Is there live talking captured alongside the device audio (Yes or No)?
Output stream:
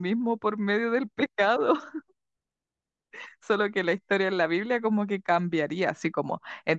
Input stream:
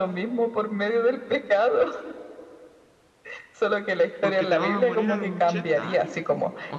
Yes